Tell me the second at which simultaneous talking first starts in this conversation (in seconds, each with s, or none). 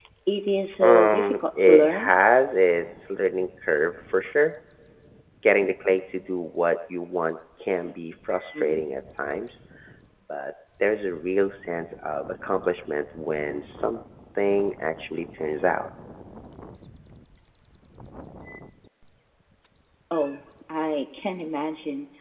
0.8 s